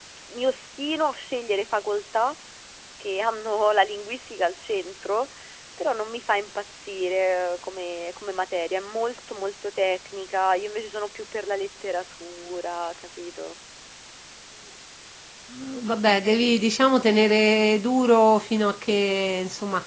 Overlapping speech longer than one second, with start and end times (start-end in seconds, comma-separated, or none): none